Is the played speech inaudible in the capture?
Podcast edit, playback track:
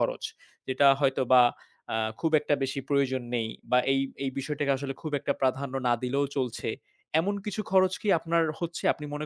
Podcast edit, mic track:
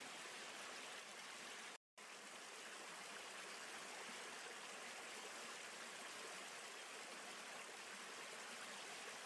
Yes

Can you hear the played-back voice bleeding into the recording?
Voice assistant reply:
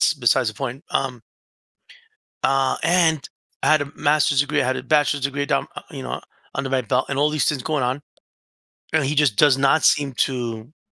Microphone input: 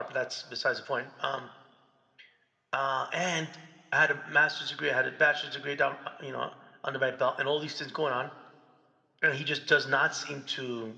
Yes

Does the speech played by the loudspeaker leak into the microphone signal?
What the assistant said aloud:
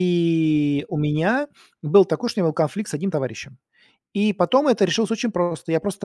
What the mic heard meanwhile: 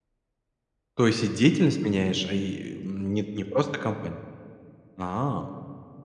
No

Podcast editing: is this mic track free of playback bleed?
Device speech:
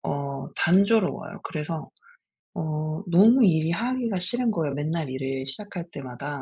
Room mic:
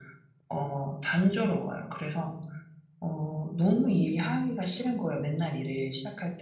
No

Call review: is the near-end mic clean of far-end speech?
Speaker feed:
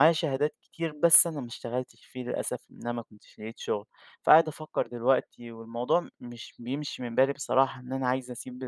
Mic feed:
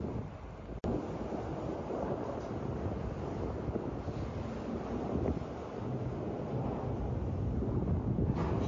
Yes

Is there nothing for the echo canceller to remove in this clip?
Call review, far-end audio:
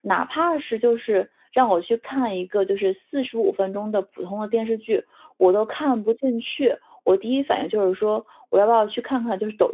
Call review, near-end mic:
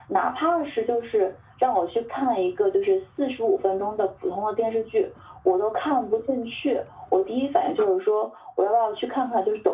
No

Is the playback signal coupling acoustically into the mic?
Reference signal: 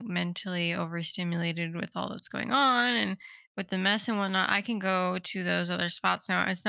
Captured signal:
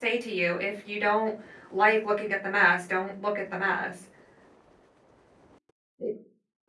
No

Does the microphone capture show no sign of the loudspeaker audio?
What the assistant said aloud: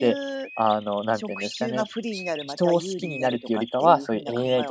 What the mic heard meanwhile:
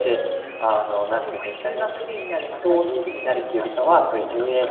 No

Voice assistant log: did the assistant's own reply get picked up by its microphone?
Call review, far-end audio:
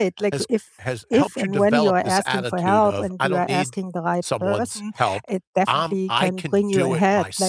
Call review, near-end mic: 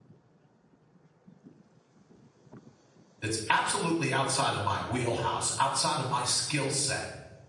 No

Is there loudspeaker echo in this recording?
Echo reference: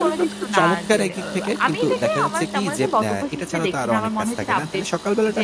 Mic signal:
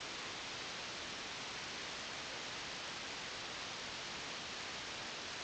No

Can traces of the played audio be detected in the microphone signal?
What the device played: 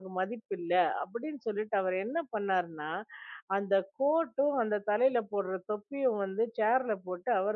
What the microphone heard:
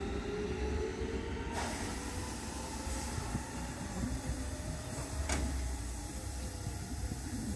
No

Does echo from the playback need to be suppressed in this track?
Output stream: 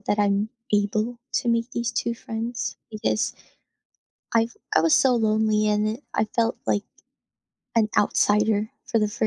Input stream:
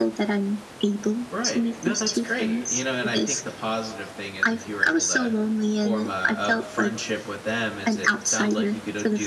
Yes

